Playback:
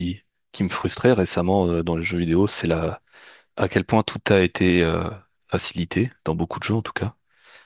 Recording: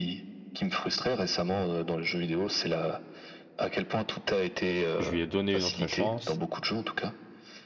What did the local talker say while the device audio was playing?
Je lui ai donné une autre chance

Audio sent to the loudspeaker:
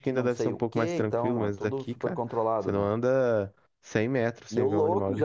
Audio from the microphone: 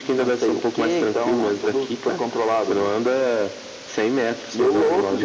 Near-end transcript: none

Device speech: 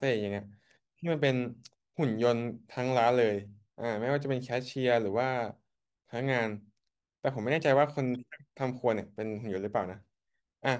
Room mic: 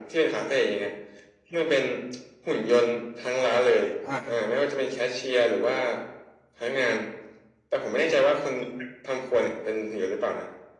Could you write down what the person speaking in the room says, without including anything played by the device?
อ่ะ

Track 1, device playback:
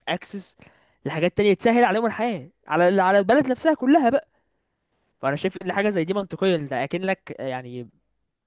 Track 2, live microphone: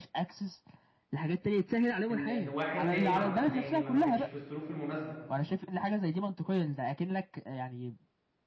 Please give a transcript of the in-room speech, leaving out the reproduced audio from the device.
ان ان واحد تاني مع يعني ما ما كانش في الظروف المناسبة

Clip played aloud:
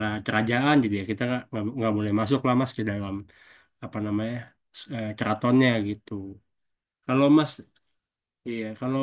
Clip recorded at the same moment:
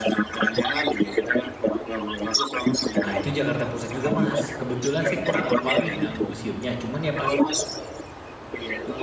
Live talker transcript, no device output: Nah, itu Jakarta Pusat juga, Mas. Kebetulan saya kurang apal nih nama museumnya. Cuman ya pas

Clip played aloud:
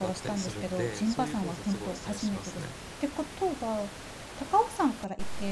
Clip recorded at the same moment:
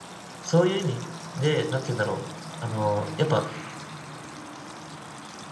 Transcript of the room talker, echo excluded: そういう意味で、なんて言うんだろう。あの、やっぱ、

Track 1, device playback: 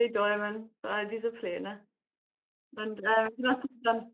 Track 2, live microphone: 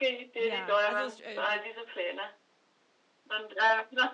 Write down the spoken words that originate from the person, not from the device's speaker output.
Ja, also es, äh,

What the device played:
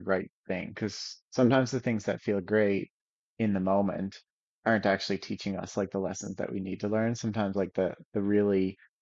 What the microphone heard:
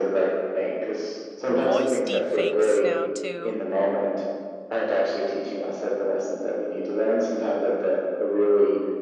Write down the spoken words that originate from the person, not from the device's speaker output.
voice deepfakes now too.

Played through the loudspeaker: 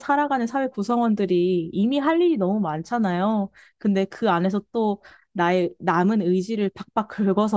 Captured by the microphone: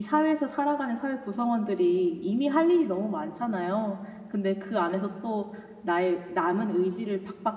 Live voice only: none

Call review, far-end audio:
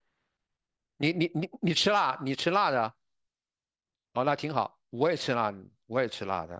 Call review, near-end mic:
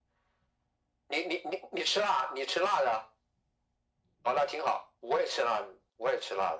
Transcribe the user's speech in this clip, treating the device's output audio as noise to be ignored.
none

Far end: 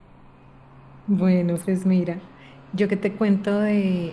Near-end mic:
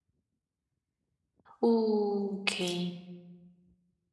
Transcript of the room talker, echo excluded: Uh, ok.

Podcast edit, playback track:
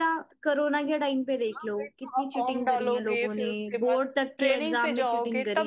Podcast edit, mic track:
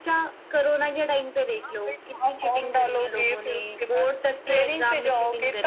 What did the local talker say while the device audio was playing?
none

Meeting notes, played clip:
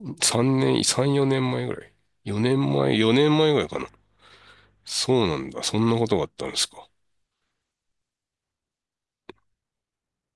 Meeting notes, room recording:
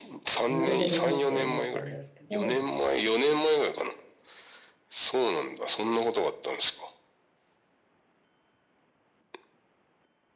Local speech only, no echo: なるほどなって思ったんですけど

